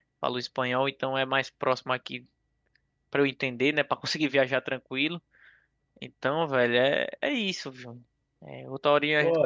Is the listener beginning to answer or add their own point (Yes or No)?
No